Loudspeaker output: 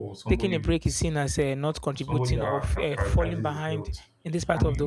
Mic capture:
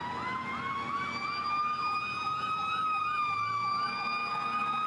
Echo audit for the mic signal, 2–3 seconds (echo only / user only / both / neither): neither